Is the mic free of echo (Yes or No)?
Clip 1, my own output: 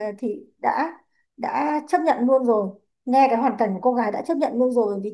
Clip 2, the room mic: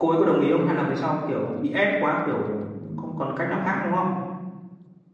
Yes